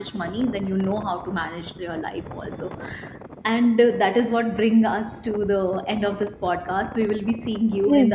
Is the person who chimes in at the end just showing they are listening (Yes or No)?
No